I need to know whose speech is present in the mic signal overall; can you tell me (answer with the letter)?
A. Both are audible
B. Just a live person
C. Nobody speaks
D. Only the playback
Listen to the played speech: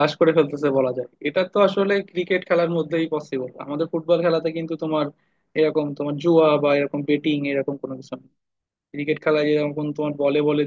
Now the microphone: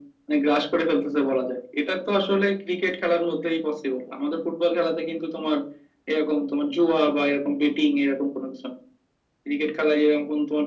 D